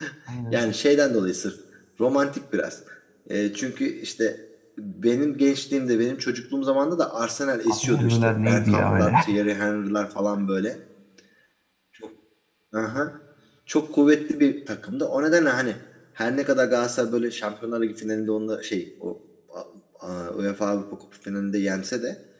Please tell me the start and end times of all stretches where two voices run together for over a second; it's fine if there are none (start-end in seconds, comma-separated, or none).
7.7-9.1